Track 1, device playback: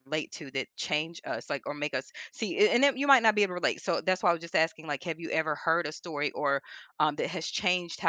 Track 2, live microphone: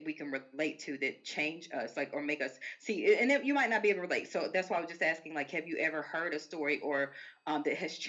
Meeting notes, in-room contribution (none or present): none